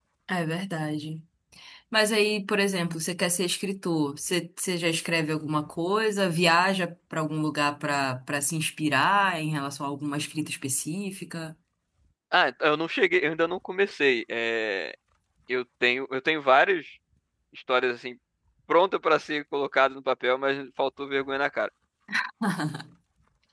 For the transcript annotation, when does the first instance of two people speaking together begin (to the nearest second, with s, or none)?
none